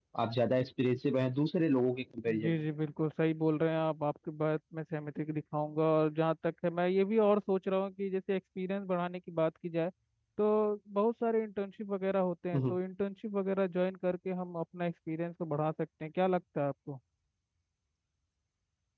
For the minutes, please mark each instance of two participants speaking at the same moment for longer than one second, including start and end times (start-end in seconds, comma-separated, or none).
none